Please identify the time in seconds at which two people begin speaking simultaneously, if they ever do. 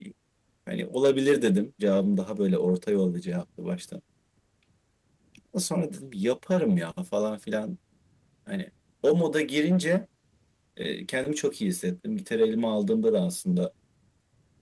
none

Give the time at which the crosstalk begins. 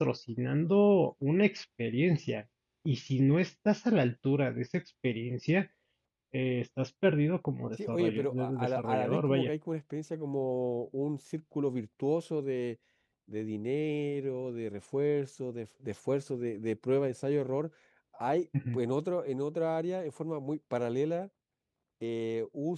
8 s

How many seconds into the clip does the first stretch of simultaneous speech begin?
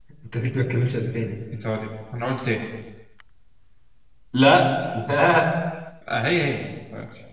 none

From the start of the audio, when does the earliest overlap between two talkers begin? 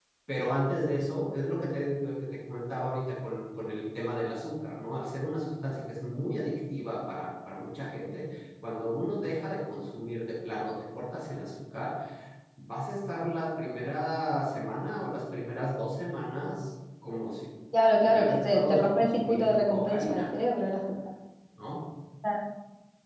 18 s

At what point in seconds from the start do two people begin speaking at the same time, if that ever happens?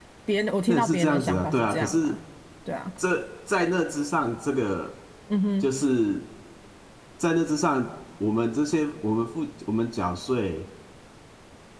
1 s

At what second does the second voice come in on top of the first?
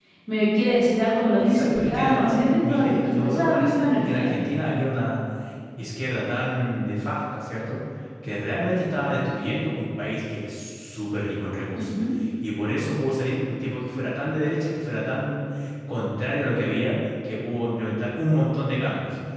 1 s

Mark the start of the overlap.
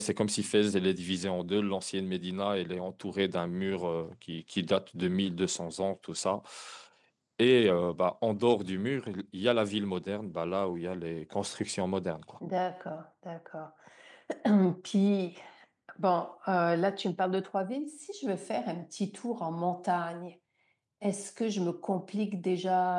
none

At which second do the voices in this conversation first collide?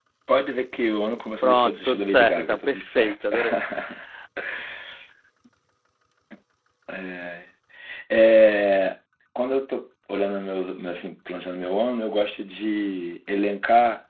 1 s

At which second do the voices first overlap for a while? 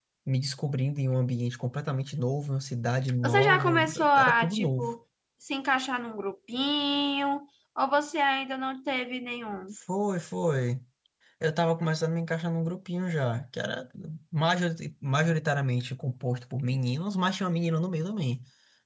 3 s

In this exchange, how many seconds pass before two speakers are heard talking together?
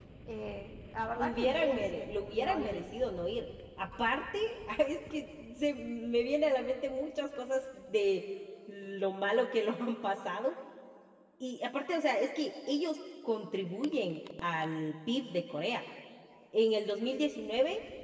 1 s

